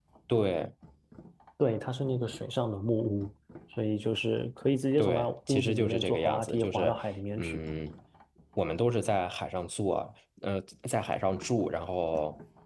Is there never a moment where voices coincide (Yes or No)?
No